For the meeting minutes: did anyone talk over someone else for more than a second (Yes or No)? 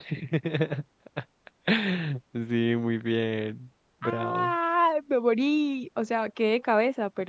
No